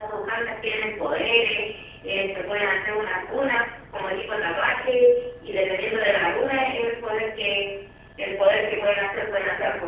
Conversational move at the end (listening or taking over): taking over